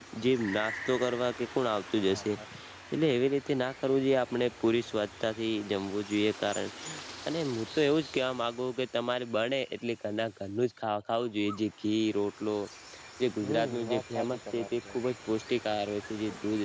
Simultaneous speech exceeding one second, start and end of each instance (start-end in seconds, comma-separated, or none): 13.4-15.0